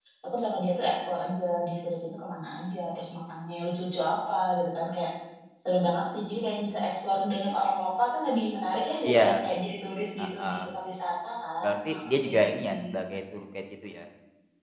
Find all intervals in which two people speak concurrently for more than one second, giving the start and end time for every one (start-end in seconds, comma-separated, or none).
11.6-12.8